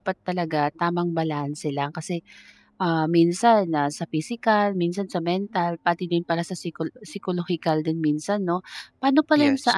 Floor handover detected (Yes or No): No